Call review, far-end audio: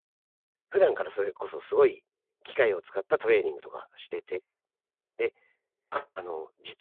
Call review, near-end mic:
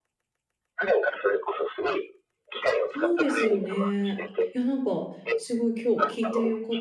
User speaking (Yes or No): Yes